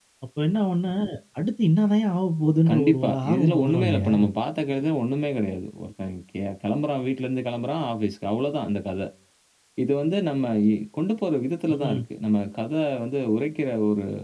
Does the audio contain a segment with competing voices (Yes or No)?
Yes